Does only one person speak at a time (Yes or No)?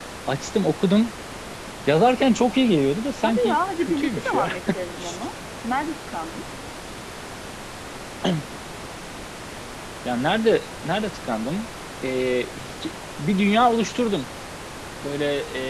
No